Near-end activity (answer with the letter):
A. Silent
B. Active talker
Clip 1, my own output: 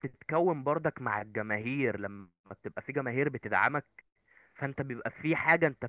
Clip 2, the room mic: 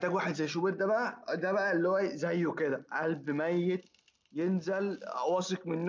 B